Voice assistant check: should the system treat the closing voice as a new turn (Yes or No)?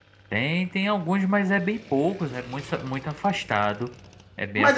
Yes